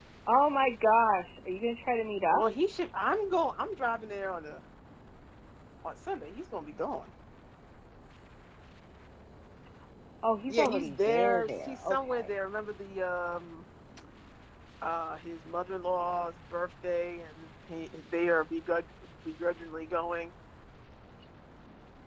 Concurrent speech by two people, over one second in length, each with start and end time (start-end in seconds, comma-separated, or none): 10.5-12.3